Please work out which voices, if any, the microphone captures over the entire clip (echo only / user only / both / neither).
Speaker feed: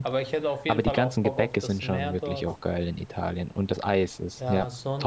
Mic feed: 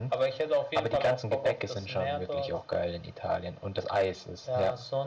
echo only